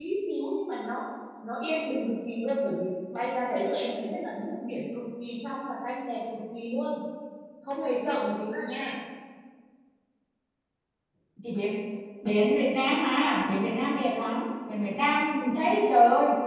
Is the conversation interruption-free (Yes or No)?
Yes